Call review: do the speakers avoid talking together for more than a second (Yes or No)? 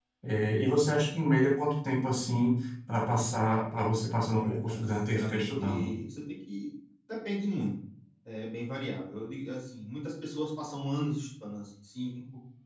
No